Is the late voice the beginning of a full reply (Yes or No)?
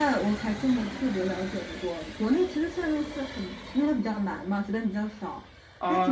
Yes